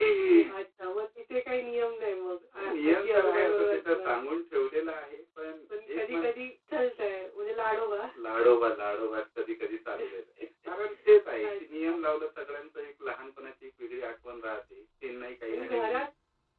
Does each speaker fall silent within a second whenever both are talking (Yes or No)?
No